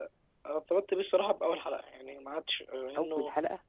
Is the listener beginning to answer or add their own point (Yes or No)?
No